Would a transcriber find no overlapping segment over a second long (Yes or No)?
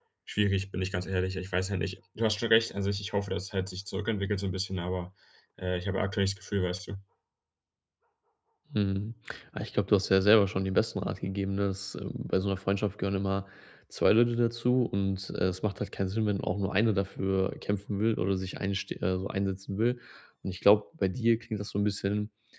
Yes